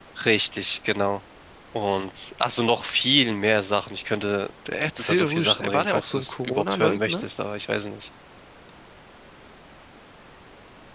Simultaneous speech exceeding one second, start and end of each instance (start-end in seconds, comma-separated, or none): 5.0-7.2